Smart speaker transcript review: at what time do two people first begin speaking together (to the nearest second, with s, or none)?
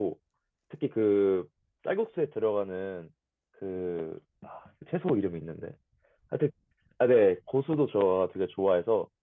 none